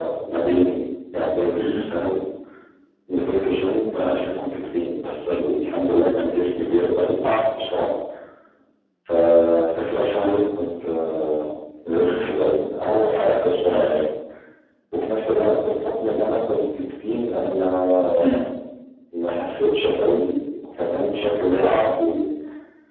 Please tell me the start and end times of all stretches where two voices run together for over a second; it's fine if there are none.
none

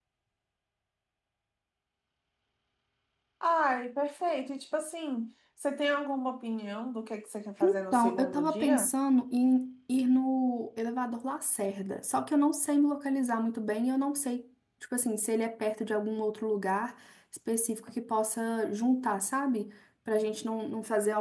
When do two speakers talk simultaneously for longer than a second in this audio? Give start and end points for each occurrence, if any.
7.6-8.9

